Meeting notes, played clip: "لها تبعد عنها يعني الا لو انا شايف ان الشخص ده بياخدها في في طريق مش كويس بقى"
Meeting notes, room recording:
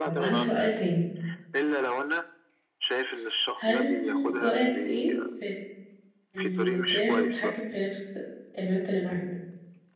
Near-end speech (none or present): present